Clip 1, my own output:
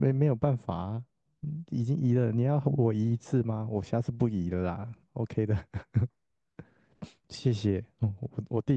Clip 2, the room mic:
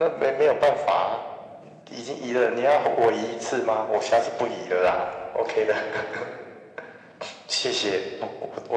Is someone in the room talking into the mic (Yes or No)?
No